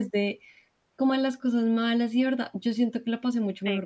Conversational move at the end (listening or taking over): listening